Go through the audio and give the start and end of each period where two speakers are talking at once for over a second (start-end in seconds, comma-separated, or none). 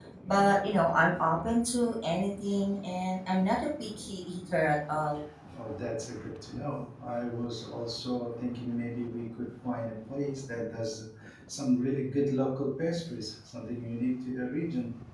none